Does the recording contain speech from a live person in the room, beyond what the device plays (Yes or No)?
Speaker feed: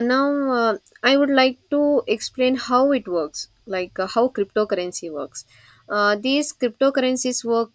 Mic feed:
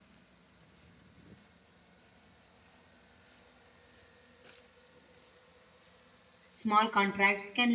Yes